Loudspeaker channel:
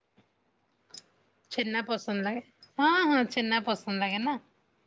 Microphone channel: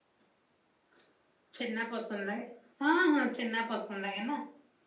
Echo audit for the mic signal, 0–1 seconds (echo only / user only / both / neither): neither